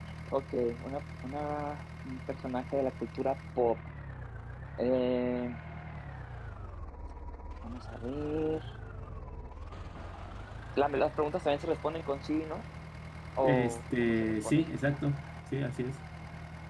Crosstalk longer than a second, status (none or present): present